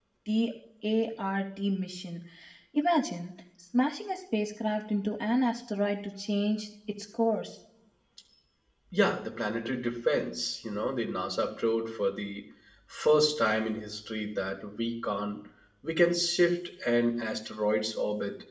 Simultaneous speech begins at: none

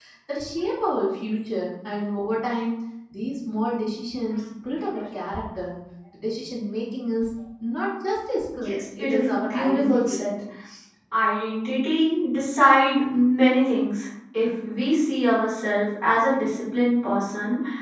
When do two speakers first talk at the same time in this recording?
8.6 s

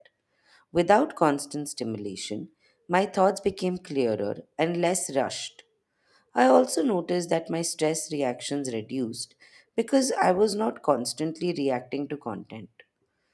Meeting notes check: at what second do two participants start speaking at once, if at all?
none

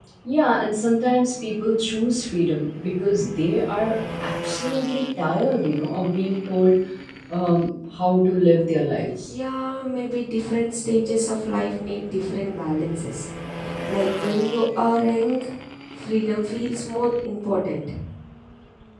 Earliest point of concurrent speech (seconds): none

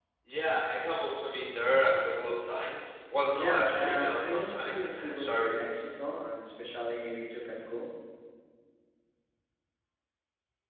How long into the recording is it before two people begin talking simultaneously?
3.3 s

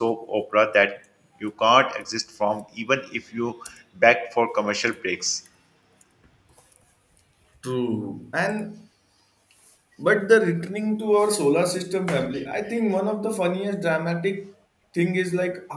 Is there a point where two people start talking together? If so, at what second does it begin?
none

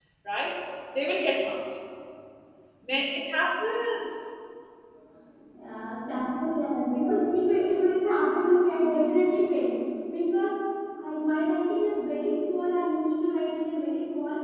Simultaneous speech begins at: none

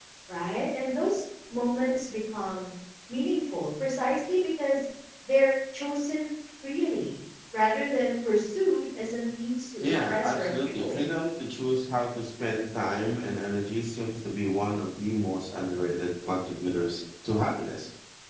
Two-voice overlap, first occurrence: 9.8 s

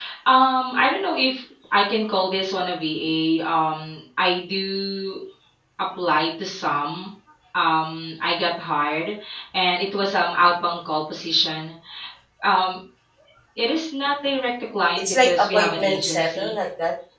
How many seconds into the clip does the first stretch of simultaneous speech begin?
15.0 s

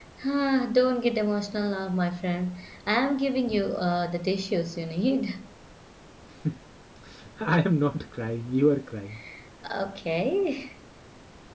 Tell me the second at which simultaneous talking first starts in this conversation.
none

